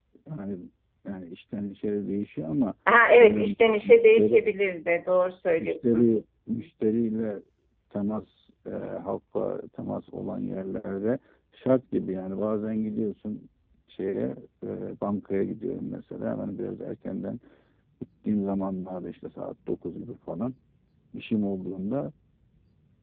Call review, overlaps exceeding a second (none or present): present